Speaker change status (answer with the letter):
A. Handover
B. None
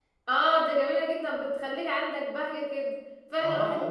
A